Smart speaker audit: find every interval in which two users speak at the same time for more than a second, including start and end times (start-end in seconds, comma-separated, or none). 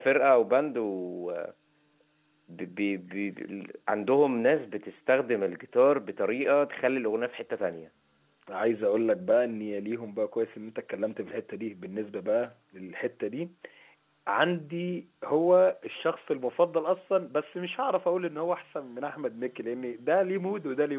none